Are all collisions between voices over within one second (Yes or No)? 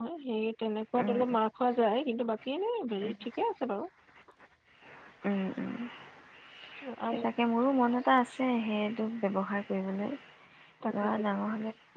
Yes